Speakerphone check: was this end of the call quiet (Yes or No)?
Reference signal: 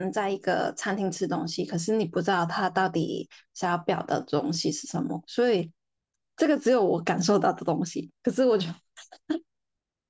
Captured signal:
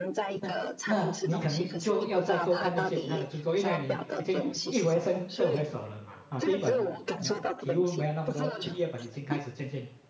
No